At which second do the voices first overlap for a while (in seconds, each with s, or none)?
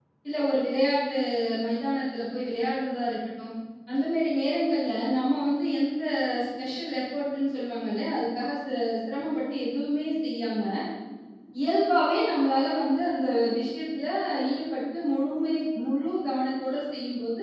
none